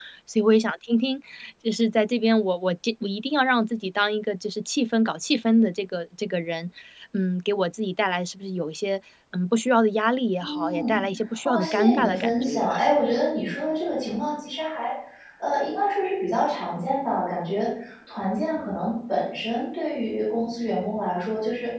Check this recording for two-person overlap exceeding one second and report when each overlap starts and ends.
11.4-12.8

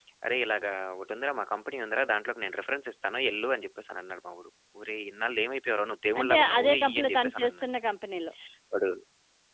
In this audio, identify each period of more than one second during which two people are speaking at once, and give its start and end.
6.2-7.7

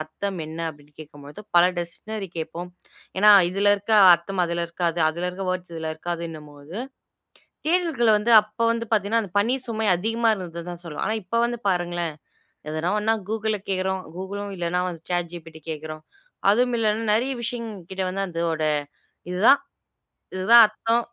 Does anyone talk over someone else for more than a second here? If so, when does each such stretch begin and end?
none

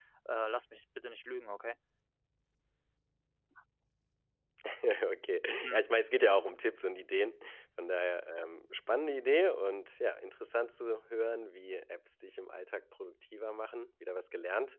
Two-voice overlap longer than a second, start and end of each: none

